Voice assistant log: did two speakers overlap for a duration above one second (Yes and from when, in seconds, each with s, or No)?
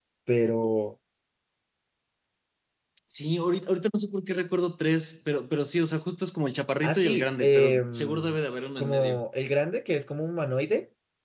Yes, from 6.8 s